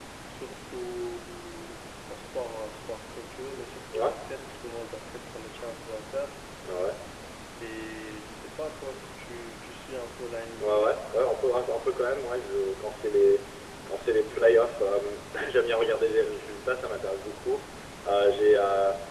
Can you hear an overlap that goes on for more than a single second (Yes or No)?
No